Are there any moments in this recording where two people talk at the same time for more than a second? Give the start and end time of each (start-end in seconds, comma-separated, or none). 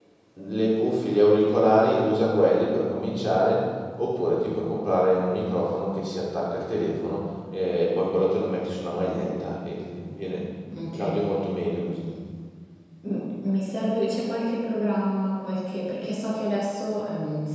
none